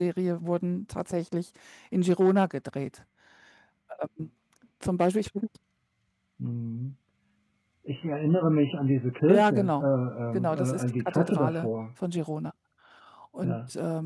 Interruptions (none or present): present